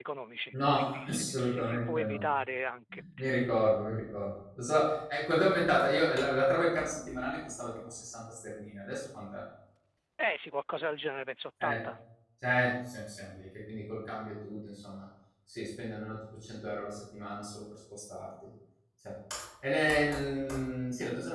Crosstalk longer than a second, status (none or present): present